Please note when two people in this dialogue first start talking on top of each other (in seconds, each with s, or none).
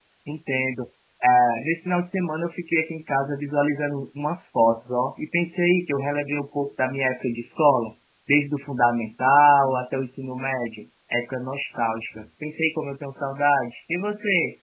none